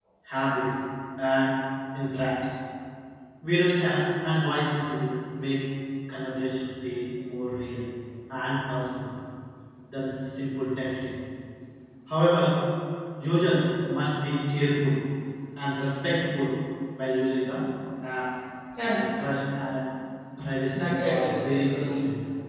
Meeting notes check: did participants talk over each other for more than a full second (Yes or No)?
Yes